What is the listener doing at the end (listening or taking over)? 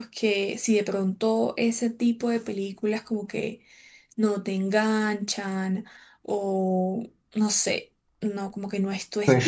taking over